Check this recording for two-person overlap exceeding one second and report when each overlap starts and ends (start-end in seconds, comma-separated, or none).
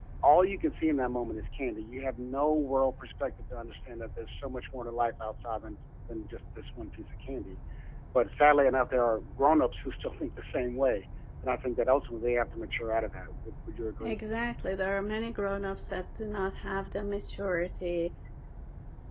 none